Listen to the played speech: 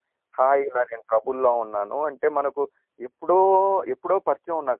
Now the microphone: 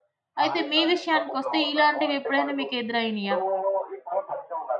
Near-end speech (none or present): present